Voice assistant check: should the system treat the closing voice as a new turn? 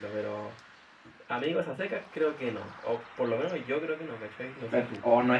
Yes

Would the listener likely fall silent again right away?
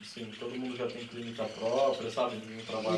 No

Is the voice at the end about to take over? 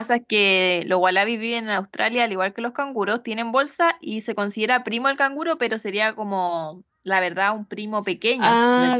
Yes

